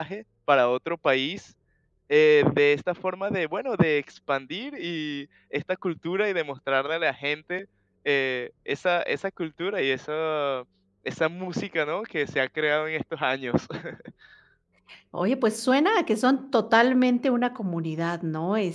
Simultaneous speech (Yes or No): No